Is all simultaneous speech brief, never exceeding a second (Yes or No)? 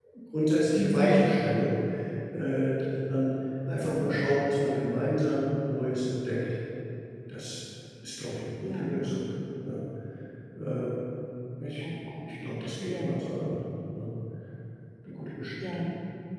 Yes